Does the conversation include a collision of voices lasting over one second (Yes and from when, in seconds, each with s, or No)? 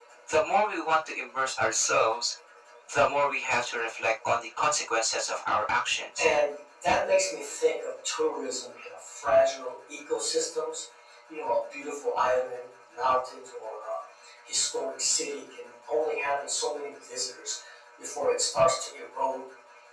No